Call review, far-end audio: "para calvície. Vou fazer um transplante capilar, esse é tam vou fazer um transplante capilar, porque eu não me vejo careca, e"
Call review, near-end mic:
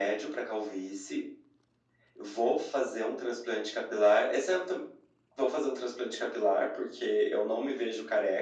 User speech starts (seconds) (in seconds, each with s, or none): none